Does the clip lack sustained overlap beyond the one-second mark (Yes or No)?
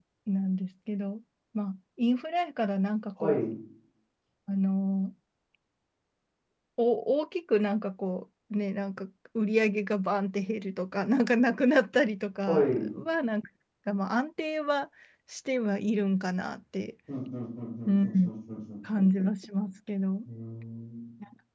Yes